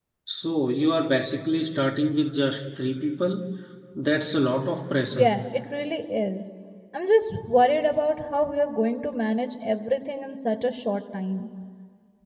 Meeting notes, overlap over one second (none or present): none